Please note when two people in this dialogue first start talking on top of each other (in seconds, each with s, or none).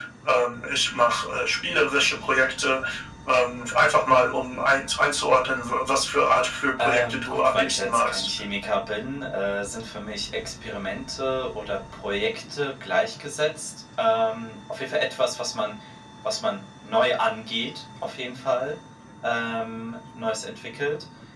6.8 s